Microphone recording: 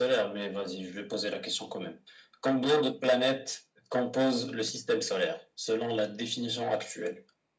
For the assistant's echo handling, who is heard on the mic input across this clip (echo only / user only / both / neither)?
echo only